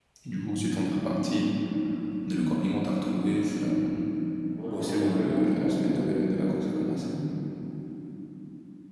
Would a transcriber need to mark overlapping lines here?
Yes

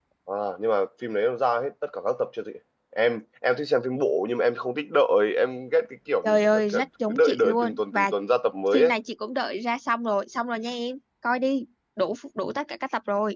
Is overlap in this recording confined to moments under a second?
No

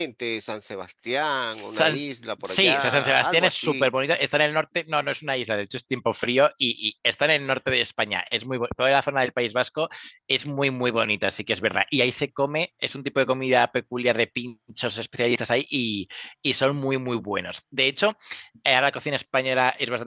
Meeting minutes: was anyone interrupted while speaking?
Yes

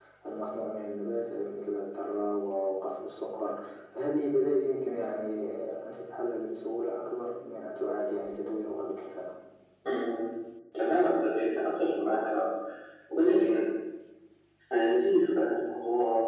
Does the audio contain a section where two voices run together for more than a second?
No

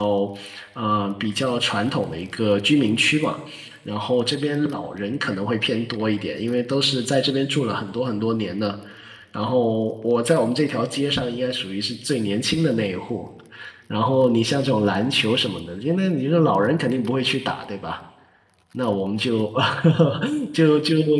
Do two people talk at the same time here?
No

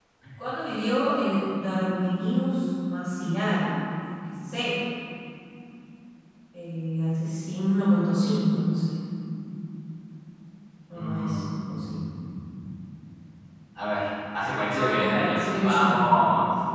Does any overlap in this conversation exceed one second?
Yes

